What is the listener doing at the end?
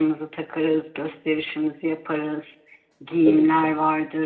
listening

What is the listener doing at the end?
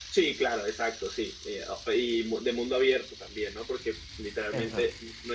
listening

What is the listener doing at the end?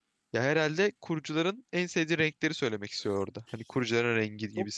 taking over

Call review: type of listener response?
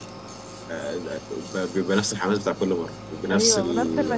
taking over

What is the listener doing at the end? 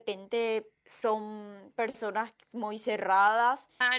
taking over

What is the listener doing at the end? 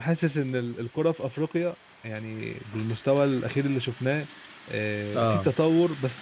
listening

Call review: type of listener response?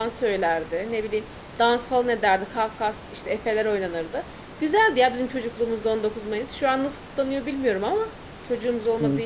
listening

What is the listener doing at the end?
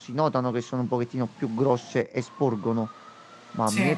listening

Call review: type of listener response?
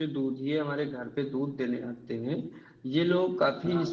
listening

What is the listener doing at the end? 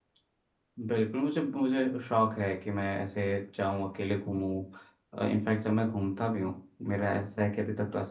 listening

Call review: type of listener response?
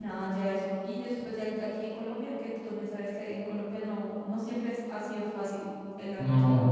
taking over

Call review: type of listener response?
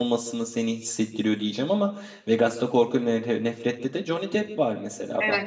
taking over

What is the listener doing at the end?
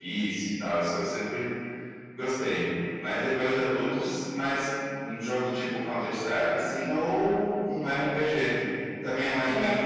taking over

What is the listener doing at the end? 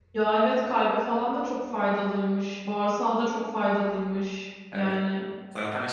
taking over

